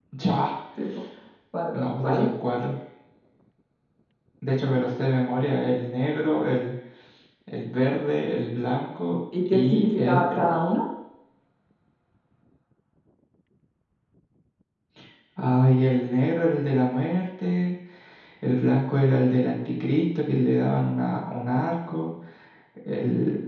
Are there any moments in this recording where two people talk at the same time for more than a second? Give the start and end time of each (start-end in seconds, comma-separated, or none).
9.5-10.7